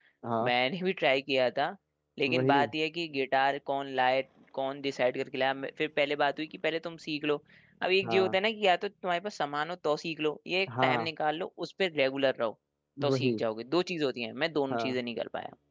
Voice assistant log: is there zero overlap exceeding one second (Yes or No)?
Yes